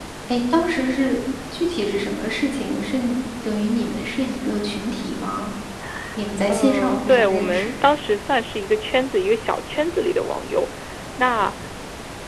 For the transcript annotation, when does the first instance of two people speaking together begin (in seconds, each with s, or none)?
6.5 s